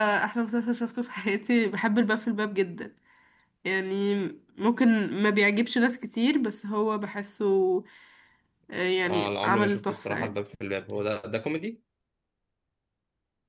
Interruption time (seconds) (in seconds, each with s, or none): 9.1 s